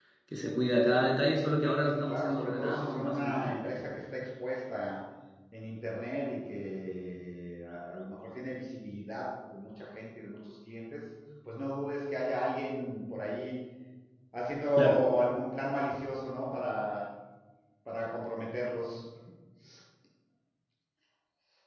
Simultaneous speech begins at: 2.1 s

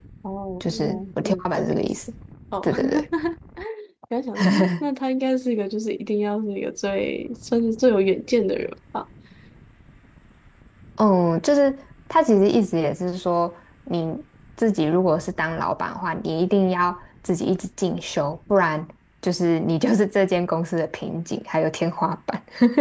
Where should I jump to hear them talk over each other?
0.6 s

